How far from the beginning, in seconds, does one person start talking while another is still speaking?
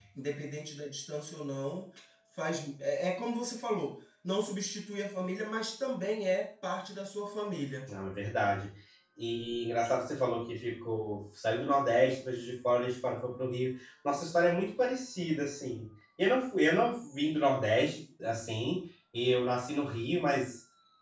none

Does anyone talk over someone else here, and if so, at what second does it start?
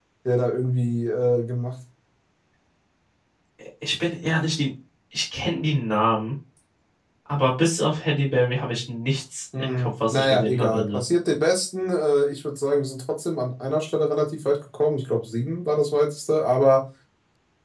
9.5 s

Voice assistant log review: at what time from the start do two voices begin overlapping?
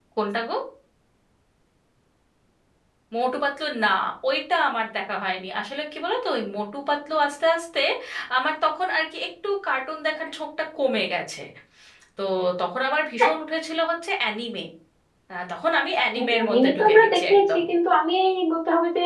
16.3 s

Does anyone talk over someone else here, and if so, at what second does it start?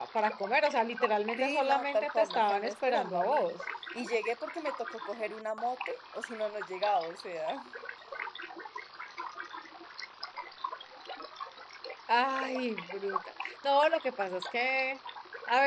1.4 s

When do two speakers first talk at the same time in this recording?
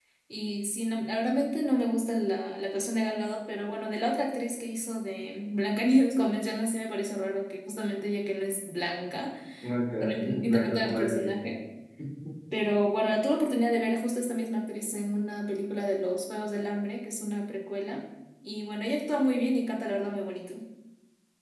10.0 s

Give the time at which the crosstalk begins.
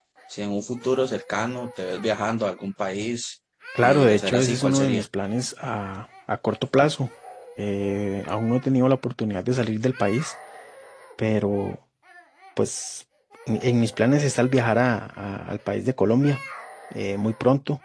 3.8 s

